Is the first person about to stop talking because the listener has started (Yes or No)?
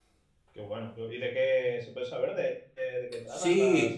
Yes